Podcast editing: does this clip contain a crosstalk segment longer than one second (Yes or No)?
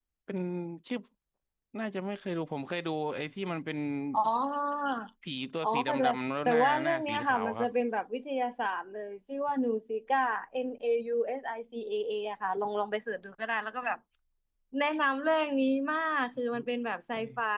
Yes